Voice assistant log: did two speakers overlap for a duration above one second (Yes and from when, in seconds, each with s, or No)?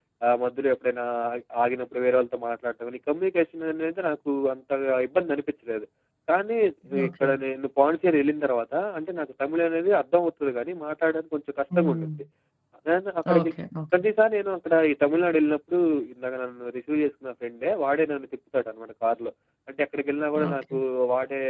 No